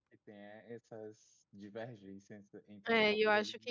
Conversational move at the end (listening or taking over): taking over